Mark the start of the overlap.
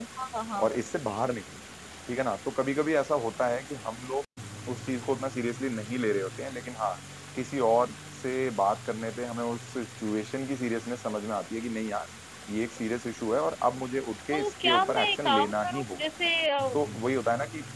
14 s

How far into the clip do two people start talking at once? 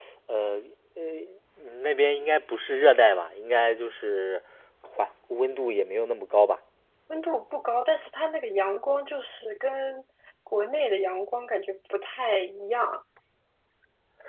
none

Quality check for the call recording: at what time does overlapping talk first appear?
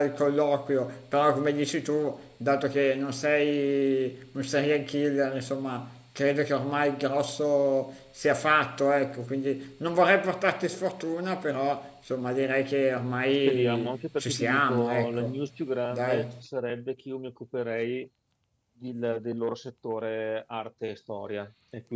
13 s

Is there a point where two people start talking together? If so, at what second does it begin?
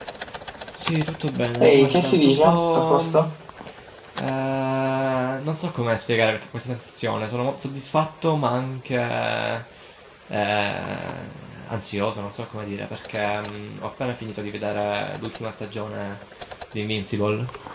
2 s

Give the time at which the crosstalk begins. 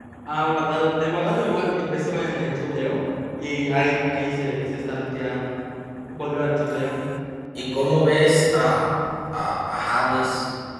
none

